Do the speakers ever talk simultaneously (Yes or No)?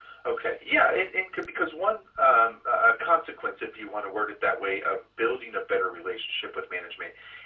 No